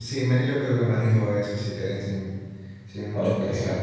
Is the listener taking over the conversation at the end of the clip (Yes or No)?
Yes